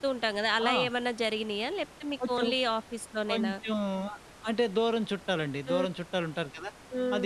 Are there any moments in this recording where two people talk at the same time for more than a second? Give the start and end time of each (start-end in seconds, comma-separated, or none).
none